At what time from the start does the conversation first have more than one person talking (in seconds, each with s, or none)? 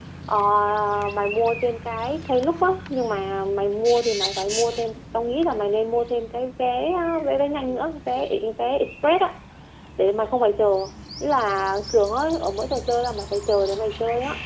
none